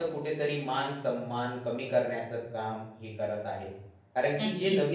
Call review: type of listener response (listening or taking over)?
listening